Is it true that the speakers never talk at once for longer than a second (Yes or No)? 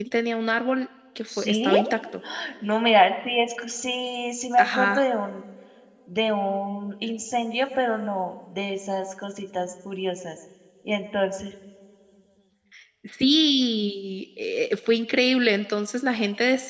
Yes